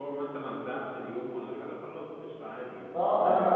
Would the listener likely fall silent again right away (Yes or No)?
No